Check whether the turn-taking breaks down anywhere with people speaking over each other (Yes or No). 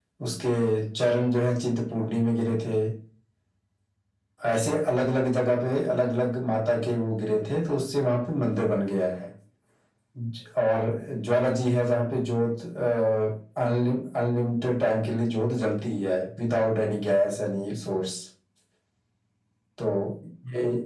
No